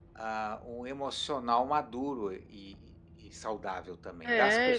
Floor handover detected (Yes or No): Yes